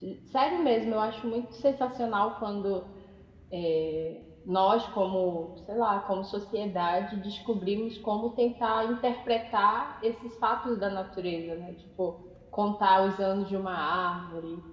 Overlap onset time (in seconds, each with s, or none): none